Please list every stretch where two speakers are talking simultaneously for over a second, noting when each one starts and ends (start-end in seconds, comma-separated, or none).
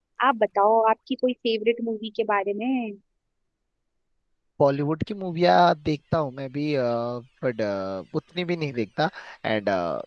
none